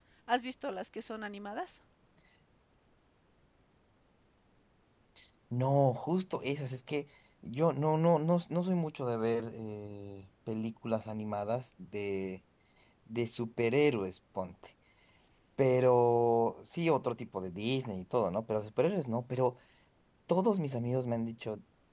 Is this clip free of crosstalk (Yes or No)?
Yes